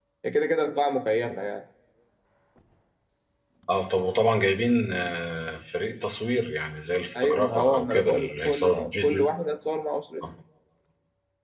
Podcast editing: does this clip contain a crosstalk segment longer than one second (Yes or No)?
Yes